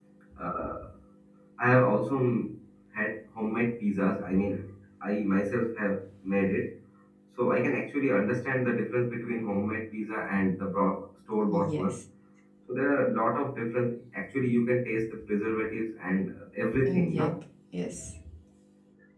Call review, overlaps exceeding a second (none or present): none